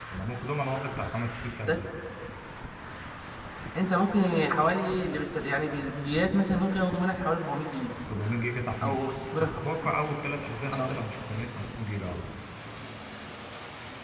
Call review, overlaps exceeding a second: none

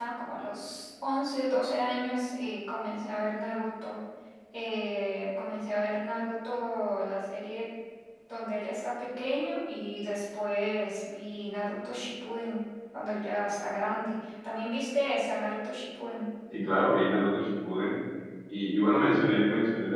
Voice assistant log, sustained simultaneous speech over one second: none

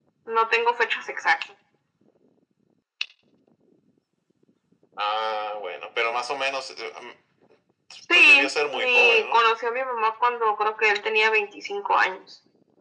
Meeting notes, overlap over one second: present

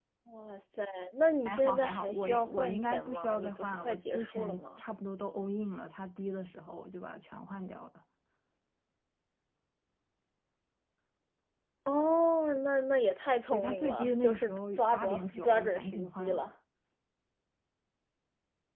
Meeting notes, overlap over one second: present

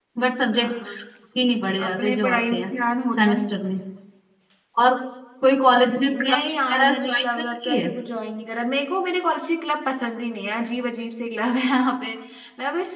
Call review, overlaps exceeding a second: present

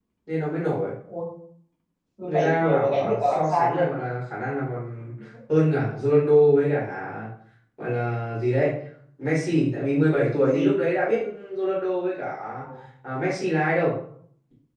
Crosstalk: present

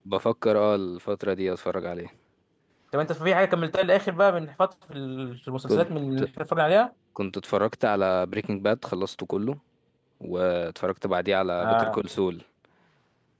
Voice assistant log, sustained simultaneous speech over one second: none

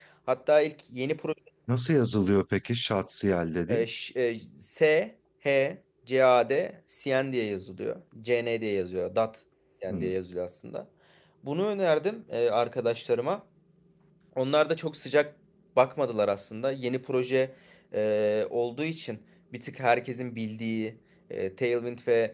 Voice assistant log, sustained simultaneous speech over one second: none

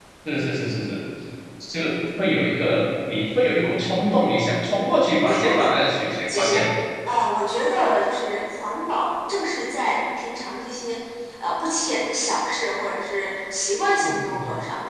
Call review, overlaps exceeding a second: none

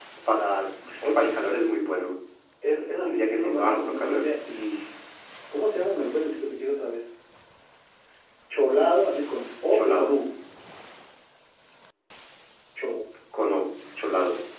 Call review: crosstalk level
present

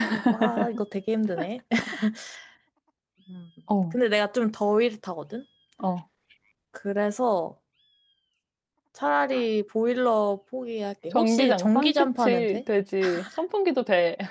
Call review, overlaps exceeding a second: present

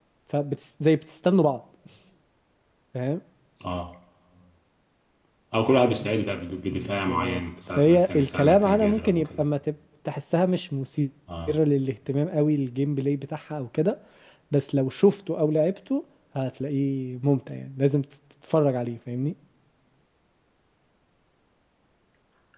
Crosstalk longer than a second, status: present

